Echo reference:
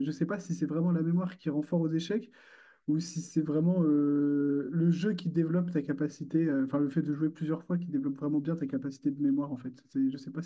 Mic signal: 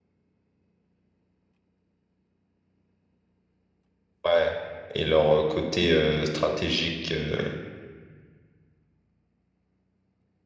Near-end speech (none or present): present